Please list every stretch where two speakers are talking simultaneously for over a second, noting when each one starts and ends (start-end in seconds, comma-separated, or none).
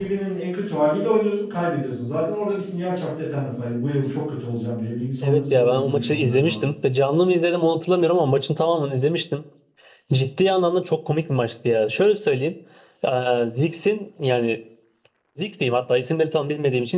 5.2-6.7